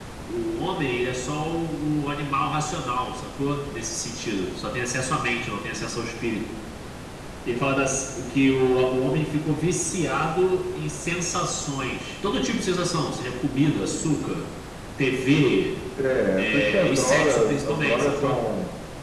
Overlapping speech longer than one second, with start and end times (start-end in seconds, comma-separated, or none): 16.4-18.4